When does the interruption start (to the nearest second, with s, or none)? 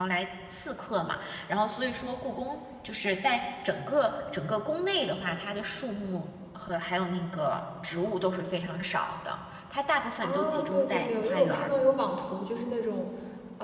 10 s